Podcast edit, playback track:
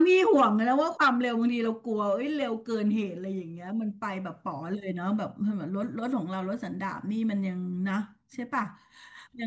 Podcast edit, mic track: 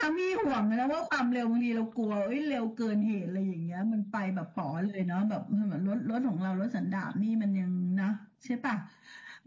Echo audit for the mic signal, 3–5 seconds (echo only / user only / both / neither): echo only